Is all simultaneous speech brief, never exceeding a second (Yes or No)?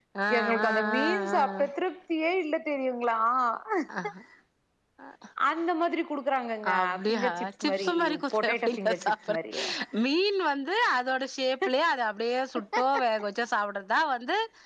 No